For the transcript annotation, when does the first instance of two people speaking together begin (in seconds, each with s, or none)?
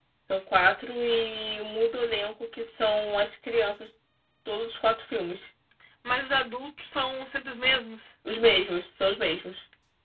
none